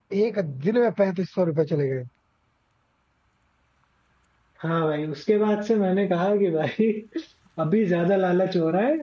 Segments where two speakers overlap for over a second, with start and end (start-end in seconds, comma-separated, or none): none